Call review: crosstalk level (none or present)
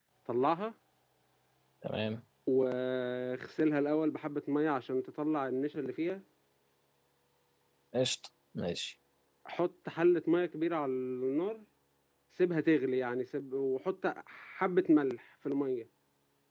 none